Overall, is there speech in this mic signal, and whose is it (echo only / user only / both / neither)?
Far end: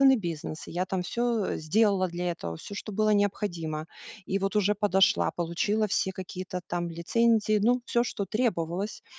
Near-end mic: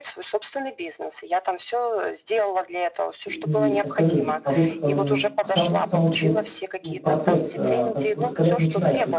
both